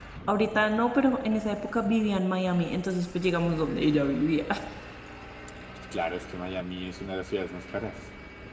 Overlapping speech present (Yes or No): No